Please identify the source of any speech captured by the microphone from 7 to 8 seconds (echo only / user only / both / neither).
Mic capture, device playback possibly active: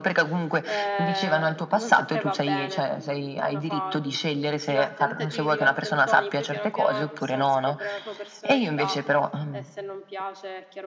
both